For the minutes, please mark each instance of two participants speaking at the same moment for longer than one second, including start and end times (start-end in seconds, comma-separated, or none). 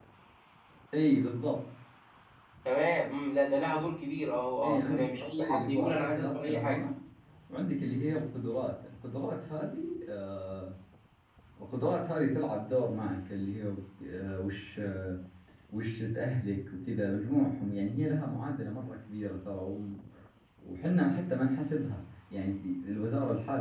4.6-6.8